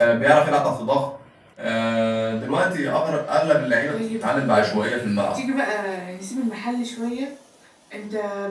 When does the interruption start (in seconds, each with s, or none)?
3.9 s